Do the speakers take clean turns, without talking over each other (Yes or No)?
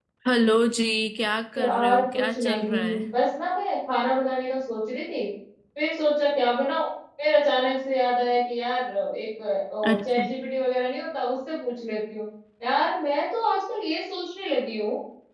No